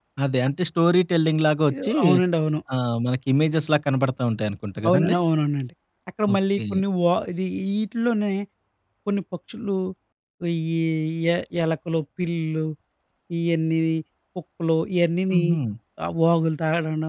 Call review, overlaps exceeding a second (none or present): none